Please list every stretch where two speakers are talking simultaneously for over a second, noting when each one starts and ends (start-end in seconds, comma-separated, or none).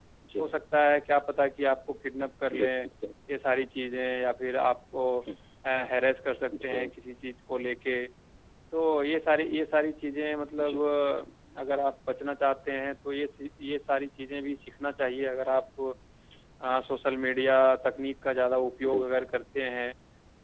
none